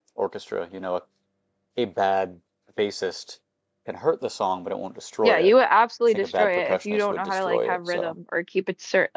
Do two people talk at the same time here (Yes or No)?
Yes